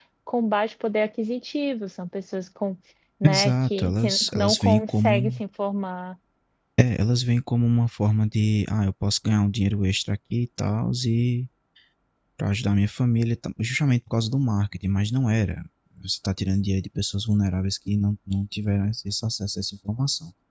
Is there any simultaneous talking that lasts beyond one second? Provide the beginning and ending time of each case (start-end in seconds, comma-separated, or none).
3.2-5.4